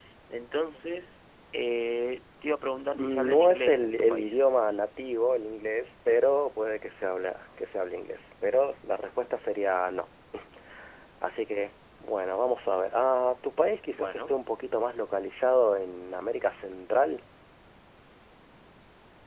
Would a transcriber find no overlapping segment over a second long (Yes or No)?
No